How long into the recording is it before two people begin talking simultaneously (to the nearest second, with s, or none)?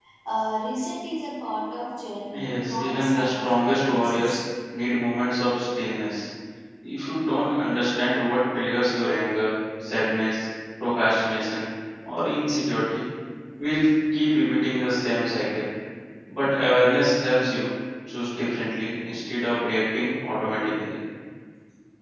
2 s